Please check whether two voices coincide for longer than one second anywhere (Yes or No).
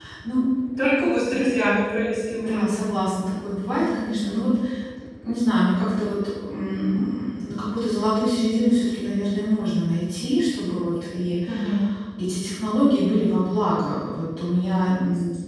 No